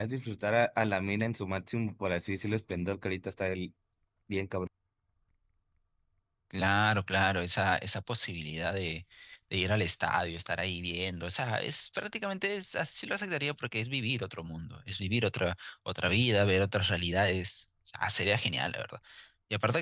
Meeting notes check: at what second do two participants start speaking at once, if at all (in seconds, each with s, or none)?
none